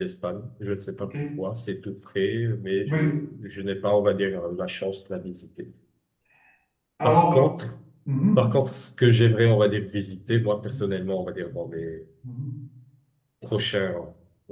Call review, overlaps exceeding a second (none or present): none